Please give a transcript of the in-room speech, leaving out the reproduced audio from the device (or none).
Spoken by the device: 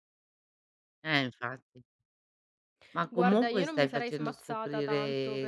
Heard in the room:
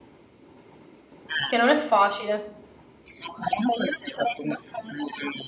che non è facile.